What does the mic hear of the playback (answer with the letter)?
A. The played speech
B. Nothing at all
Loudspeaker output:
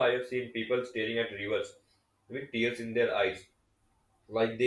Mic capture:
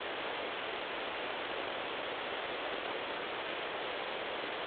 B